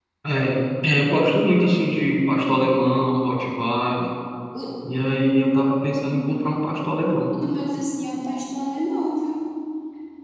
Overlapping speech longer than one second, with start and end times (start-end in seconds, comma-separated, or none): none